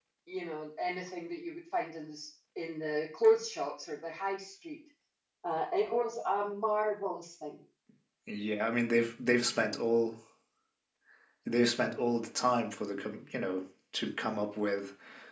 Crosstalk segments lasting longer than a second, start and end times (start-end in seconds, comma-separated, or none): none